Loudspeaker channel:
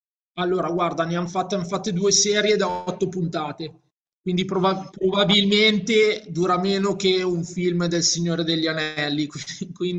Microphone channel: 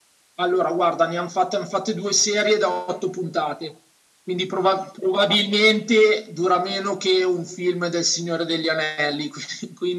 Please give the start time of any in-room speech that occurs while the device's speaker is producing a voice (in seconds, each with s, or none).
none